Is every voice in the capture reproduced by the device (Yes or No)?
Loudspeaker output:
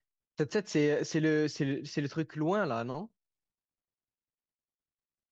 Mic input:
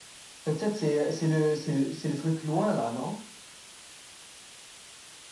Yes